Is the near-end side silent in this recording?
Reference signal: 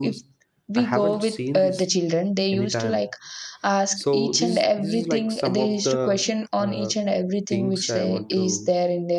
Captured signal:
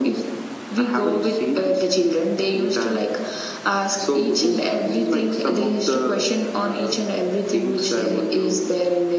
Yes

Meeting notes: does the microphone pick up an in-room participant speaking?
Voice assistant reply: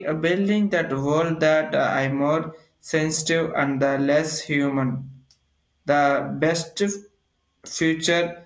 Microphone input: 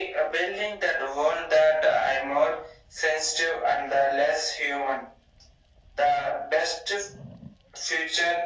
No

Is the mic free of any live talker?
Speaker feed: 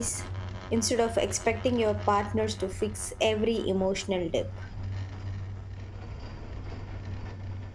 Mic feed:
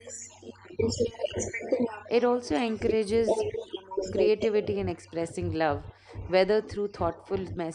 No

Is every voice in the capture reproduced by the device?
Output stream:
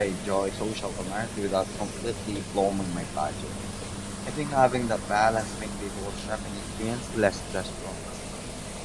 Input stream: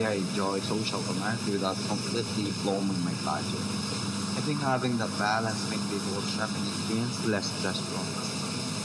Yes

